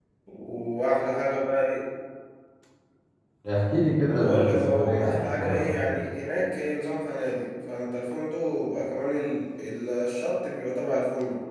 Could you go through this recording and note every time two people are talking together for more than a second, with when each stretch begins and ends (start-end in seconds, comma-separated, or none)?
4.1-5.8